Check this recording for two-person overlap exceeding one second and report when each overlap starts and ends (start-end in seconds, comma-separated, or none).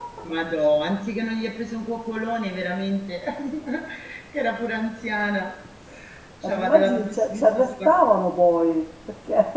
6.4-7.9